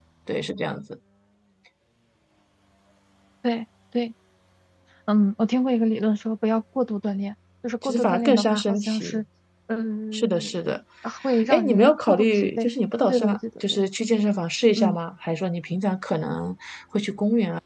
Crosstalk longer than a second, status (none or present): present